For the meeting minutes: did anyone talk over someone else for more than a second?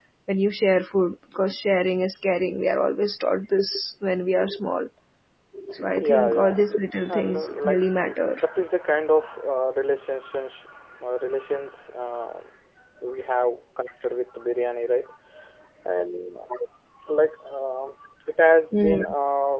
Yes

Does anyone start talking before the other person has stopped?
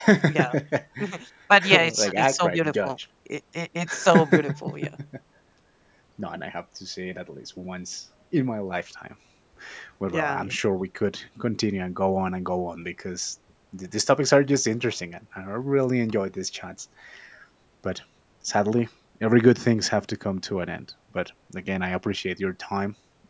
Yes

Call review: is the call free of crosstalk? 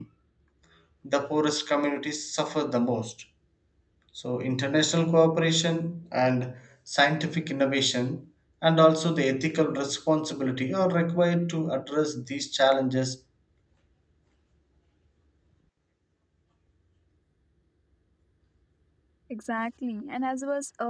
Yes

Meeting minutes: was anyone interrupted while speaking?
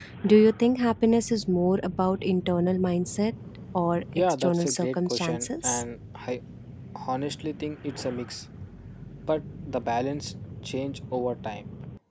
Yes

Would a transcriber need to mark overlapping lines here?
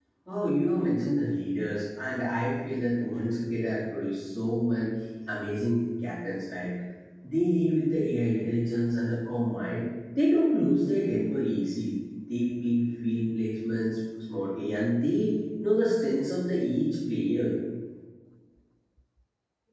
No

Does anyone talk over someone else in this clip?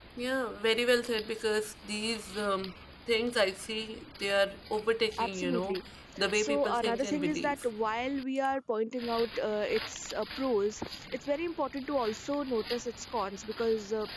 Yes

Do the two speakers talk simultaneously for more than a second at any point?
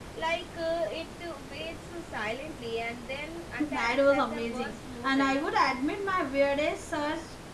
Yes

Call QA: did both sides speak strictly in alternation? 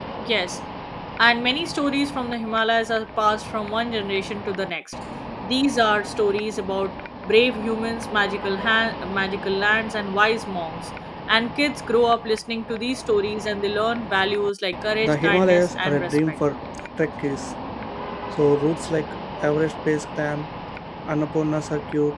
No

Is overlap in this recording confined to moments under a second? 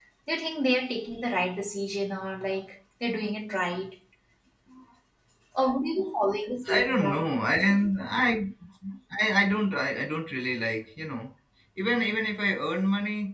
Yes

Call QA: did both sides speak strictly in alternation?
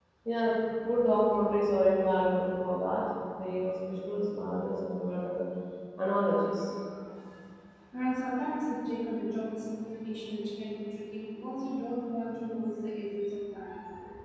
Yes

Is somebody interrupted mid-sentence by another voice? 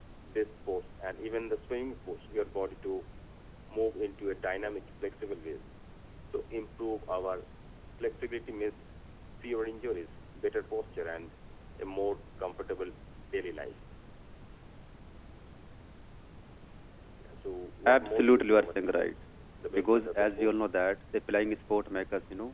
Yes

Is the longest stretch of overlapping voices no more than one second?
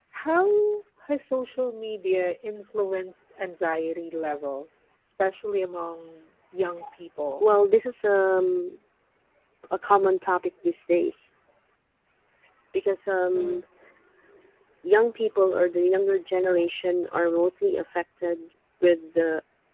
Yes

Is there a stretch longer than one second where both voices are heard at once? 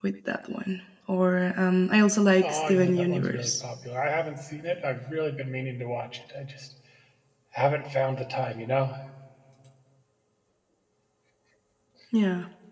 Yes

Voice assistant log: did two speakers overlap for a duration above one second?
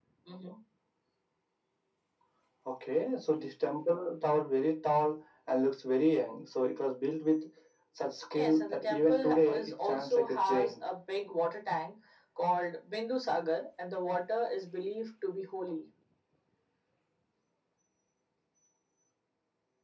Yes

